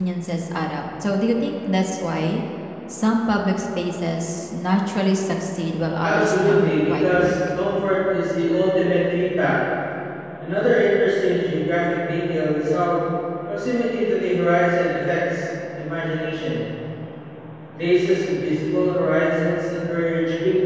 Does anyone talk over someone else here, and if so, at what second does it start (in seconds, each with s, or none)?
6.0 s